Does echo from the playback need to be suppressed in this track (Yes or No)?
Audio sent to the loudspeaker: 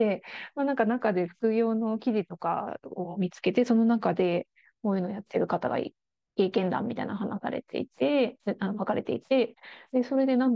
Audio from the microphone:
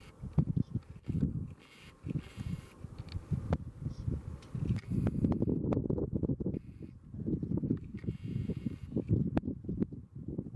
No